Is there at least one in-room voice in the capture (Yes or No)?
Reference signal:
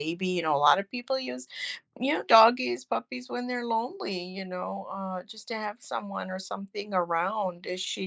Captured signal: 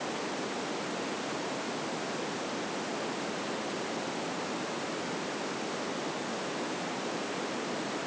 No